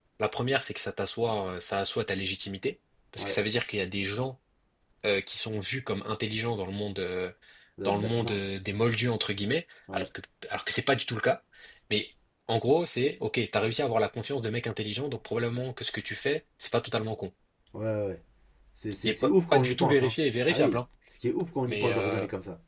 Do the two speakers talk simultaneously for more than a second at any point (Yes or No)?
Yes